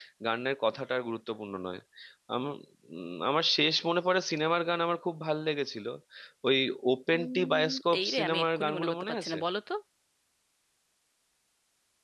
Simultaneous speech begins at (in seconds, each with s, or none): 7.1 s